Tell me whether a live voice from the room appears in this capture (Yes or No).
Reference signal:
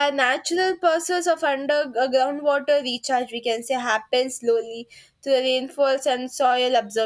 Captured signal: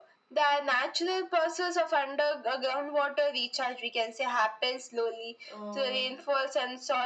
Yes